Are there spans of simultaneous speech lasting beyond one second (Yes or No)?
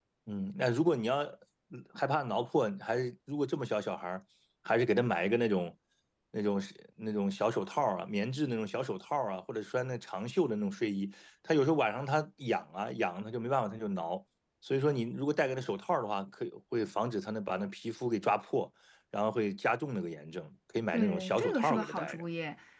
Yes